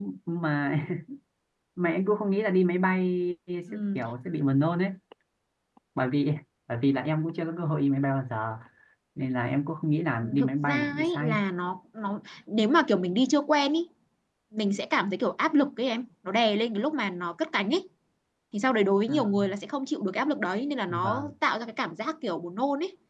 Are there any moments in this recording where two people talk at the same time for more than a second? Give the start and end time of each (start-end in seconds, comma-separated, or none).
10.2-11.4